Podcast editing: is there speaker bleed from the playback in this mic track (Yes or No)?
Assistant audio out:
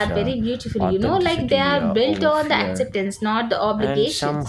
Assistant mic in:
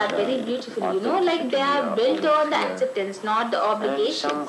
Yes